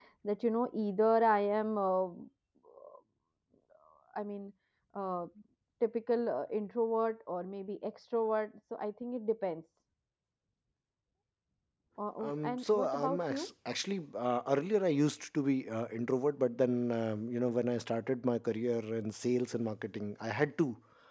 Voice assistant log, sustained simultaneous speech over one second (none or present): present